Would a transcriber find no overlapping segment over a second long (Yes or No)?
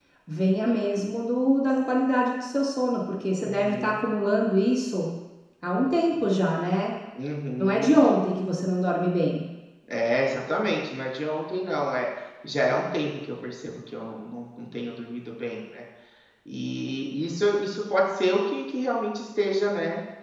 Yes